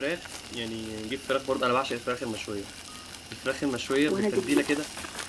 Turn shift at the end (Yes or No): No